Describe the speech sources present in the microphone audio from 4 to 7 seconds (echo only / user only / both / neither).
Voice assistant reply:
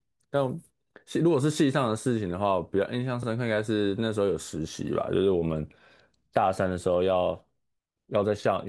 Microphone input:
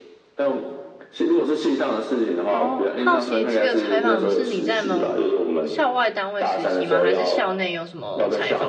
both